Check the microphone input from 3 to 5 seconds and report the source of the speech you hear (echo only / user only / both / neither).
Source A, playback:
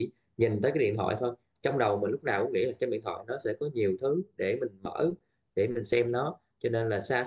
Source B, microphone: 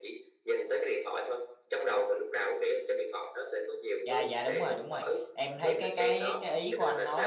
both